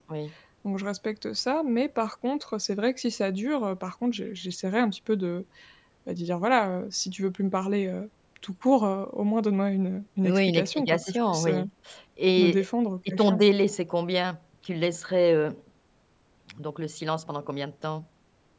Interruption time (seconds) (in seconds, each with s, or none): 10.2 s